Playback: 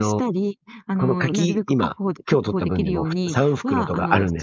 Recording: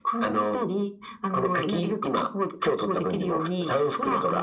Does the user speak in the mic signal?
No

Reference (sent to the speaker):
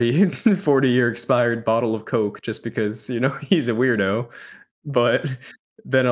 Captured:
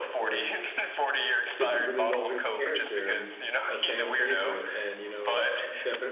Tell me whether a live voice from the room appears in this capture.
Yes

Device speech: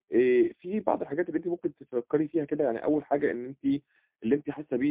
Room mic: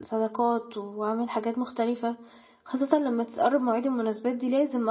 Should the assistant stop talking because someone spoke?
Yes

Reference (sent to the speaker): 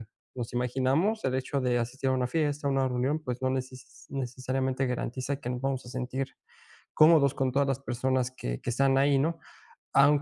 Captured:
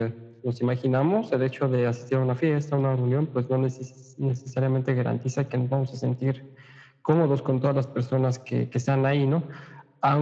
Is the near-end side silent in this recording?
Yes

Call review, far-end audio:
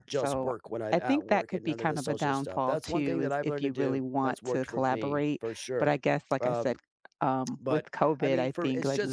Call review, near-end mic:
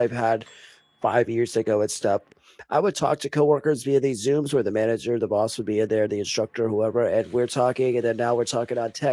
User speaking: Yes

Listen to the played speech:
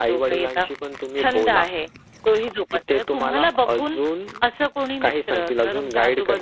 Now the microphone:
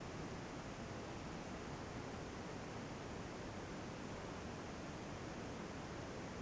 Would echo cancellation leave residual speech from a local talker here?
No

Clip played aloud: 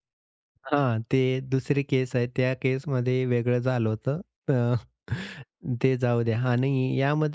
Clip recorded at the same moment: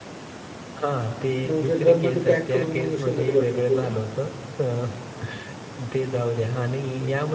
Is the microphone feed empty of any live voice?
No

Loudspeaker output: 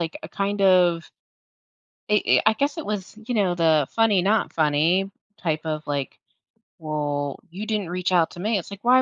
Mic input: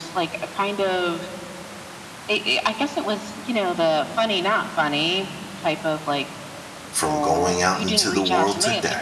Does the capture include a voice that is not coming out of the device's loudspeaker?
Yes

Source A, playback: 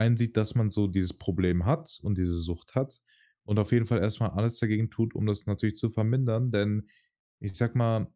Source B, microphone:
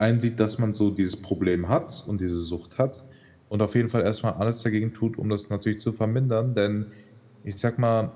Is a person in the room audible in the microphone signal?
No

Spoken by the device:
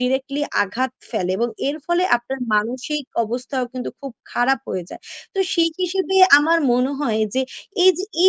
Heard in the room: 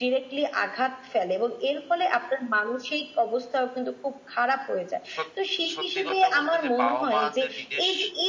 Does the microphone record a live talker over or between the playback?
Yes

